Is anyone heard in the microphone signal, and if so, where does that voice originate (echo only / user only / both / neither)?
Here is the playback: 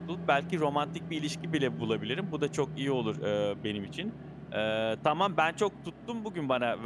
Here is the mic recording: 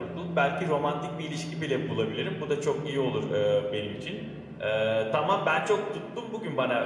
echo only